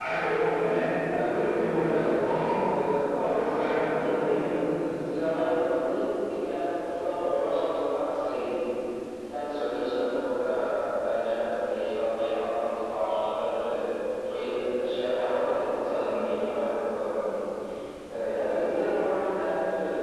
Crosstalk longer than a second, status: present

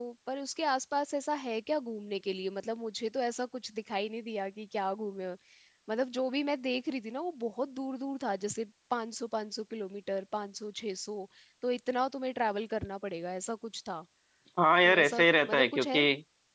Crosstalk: present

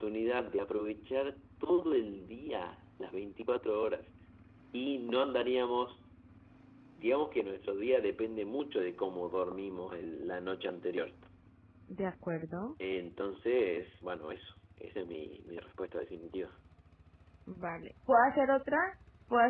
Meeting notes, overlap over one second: none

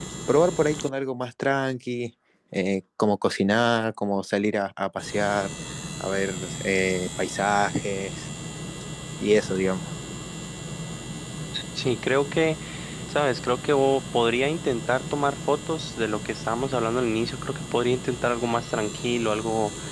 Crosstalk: none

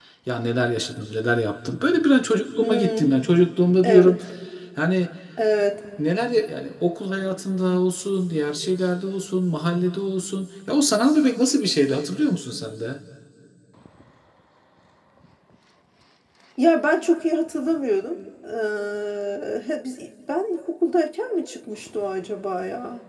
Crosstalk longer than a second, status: none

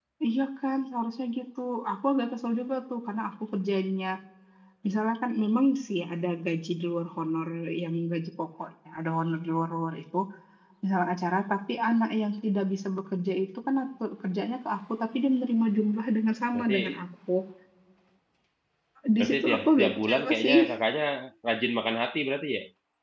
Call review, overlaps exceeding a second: present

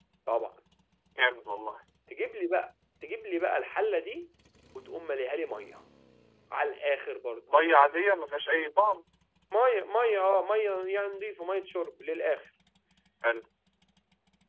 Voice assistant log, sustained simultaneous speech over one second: none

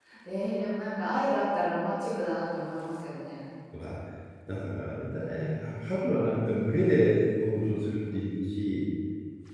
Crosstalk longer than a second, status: none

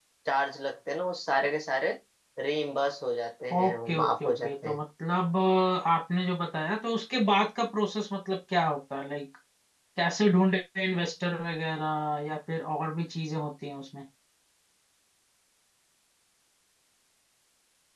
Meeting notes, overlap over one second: present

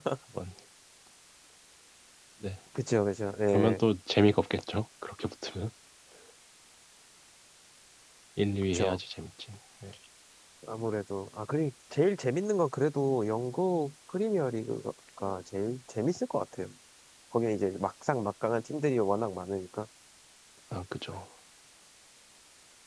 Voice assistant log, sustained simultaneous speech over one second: none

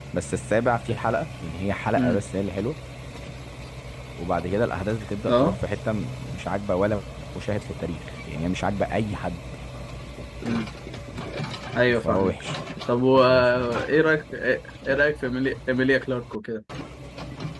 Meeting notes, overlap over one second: none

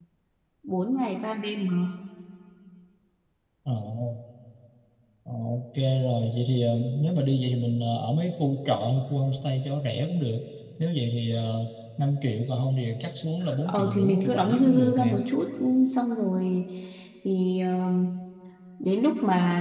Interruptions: present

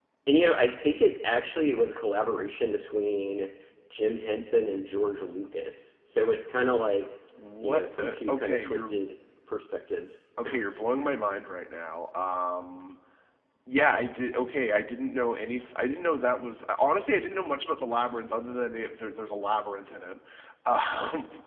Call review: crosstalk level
present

